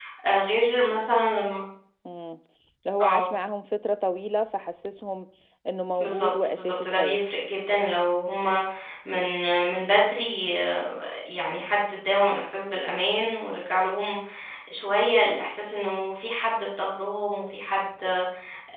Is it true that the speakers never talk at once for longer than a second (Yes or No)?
No